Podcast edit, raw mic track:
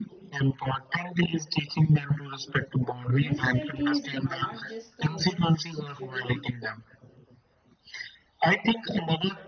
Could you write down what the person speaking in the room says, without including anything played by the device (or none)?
Women's safety is not just the woman's duty,